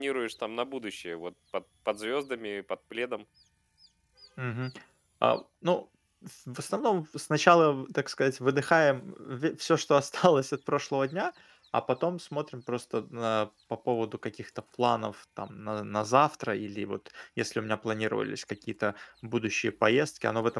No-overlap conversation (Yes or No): Yes